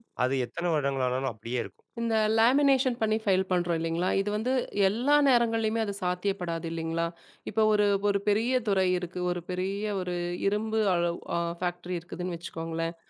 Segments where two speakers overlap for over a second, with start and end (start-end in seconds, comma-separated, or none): none